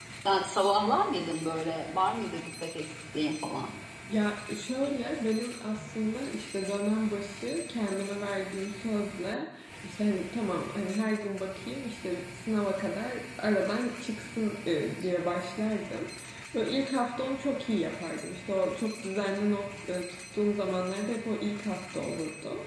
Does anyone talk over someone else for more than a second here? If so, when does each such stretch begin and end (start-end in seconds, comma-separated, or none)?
none